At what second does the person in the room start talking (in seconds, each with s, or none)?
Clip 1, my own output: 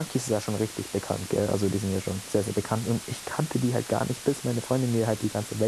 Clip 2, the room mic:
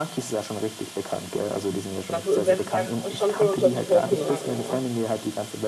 2.1 s